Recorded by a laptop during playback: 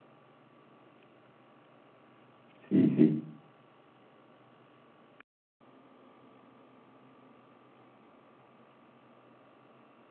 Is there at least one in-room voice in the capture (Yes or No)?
Yes